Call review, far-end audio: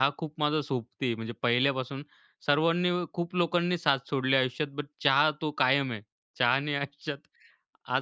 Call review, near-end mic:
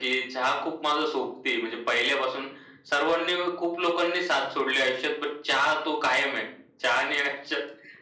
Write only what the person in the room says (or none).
none